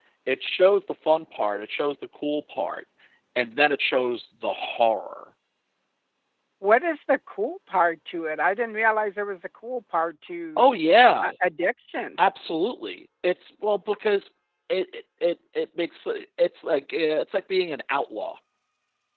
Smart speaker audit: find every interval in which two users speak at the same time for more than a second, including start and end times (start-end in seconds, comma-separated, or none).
none